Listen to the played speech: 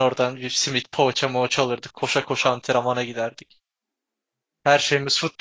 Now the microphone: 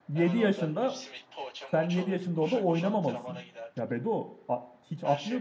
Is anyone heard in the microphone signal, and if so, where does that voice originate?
both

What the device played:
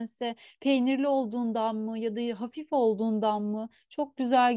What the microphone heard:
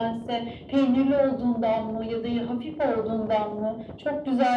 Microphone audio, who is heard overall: echo only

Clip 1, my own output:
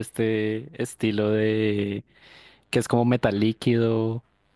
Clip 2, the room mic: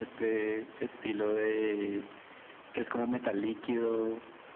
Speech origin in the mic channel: echo only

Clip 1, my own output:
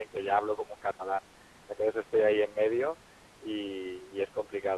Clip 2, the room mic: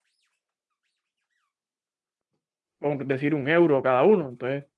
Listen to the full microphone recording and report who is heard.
user only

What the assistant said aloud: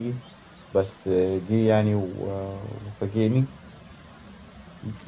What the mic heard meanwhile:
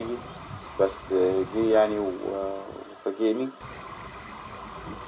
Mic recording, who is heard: echo only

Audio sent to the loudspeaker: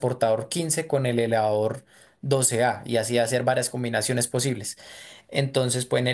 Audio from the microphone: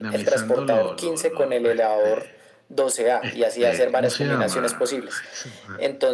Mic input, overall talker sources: both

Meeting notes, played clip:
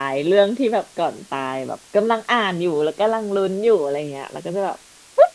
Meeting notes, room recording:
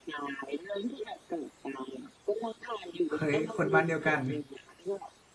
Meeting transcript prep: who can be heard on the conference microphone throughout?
both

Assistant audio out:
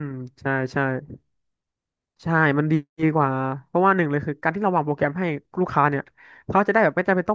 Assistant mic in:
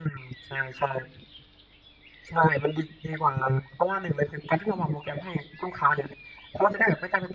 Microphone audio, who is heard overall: echo only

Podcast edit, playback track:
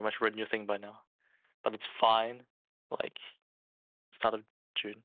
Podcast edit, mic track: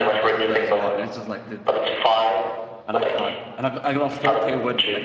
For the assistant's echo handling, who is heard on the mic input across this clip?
both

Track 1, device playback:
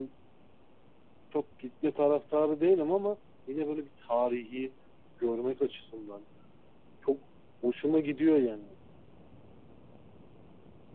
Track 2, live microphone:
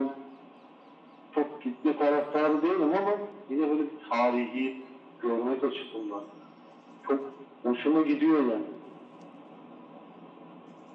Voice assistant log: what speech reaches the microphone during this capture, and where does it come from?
echo only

